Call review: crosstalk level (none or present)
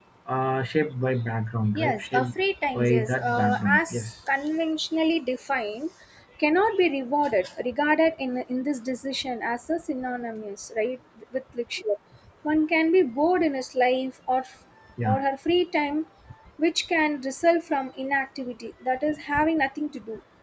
present